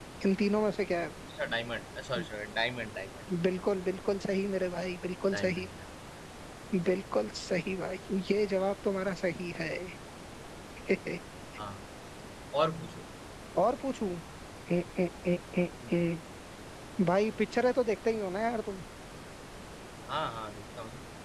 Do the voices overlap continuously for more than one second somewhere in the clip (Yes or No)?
No